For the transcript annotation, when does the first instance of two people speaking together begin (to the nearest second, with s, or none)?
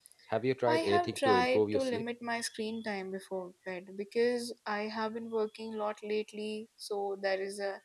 1 s